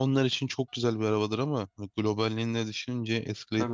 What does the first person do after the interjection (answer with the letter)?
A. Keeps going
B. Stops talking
B